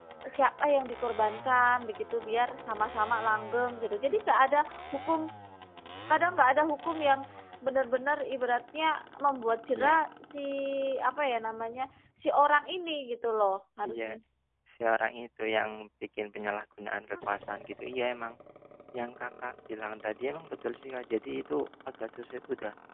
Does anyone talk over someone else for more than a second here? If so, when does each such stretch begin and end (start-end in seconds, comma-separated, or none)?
none